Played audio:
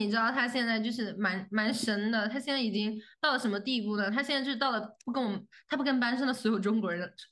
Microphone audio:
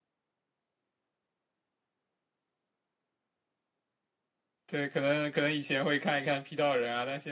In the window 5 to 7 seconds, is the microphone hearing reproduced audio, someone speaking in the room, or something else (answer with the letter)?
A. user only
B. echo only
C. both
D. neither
A